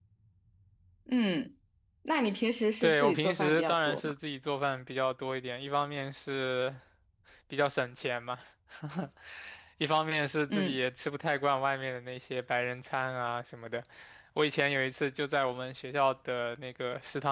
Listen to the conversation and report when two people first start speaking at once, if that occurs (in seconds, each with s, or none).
2.8 s